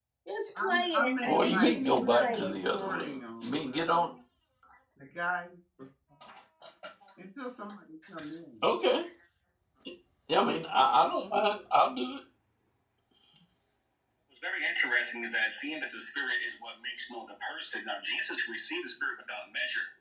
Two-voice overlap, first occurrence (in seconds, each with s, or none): 0.6 s